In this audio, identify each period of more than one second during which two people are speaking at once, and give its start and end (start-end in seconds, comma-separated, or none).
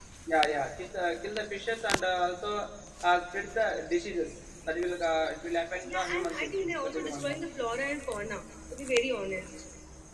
5.8-7.6